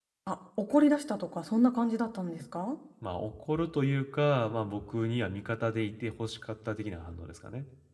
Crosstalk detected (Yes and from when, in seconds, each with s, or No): No